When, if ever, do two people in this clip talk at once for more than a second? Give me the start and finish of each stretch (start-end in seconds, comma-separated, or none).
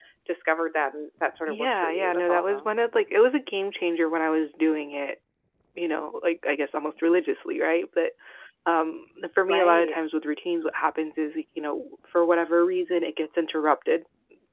1.5-2.7